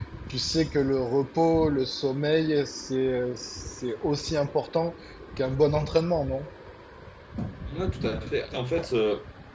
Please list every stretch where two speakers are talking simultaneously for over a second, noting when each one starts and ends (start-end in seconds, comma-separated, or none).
none